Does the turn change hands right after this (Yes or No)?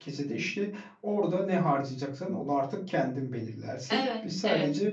No